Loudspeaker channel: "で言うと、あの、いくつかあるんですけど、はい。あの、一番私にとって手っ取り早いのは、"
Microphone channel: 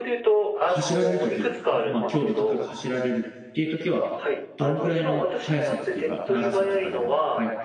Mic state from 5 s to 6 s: both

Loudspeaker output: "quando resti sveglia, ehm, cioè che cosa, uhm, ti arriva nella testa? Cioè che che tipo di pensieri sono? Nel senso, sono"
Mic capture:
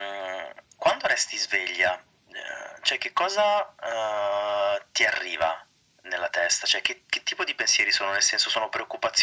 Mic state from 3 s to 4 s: echo only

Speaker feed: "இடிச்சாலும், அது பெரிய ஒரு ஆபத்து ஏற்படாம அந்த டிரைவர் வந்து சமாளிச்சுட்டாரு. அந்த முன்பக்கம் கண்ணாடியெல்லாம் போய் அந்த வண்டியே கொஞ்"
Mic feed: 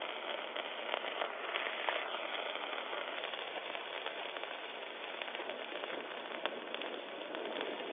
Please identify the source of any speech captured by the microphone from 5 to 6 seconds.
neither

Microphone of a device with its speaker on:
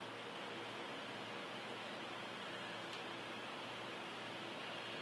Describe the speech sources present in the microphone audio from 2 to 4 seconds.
neither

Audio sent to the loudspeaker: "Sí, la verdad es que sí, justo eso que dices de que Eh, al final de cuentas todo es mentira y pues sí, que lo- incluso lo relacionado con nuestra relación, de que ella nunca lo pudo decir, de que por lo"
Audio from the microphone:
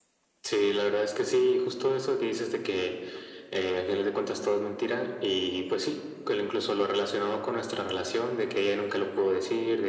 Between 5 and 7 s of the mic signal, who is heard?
echo only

